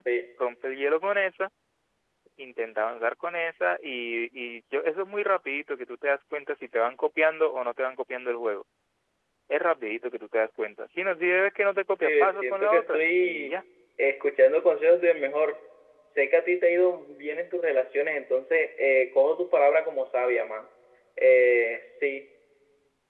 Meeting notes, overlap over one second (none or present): present